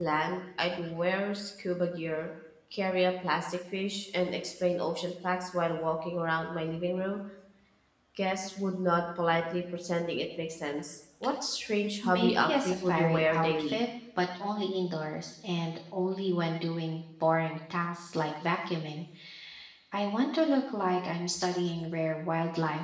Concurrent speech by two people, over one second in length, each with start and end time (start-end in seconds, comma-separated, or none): 12.0-13.8